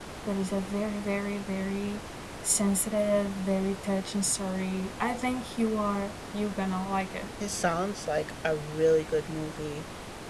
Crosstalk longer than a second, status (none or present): none